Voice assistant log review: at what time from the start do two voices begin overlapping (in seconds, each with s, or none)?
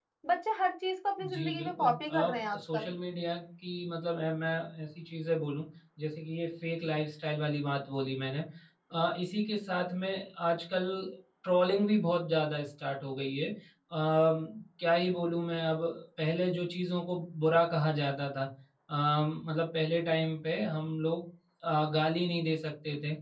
1.2 s